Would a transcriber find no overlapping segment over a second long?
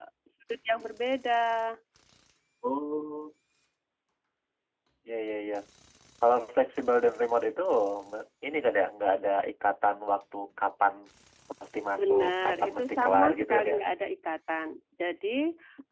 No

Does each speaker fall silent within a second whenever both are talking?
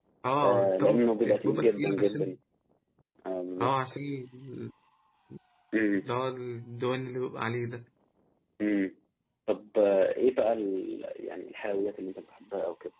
No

